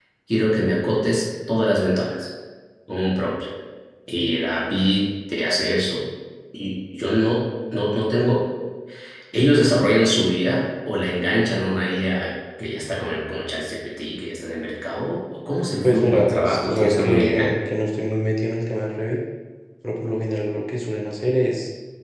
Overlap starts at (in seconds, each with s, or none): 15.8 s